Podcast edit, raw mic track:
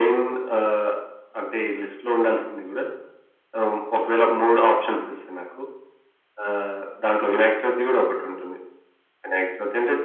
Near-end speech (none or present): none